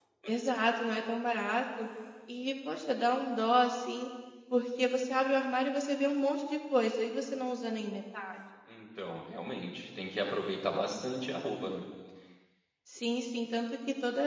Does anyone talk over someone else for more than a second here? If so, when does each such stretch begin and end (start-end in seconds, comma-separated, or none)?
none